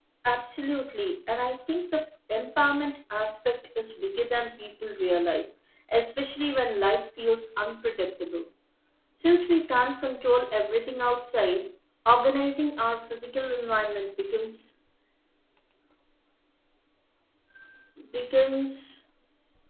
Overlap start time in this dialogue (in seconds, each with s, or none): none